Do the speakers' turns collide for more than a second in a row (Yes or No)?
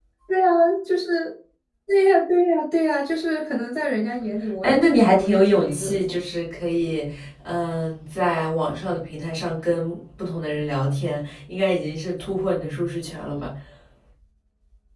Yes